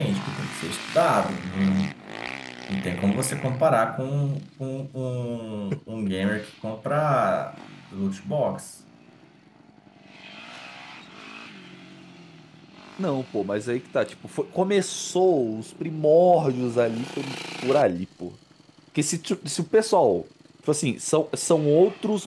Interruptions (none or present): none